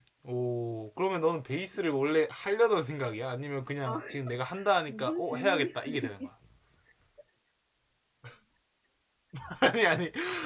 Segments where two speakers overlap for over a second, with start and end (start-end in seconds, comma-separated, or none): 4.9-6.3